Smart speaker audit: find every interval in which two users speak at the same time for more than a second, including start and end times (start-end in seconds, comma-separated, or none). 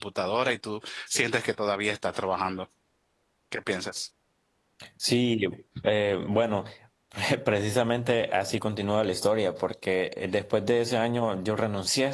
none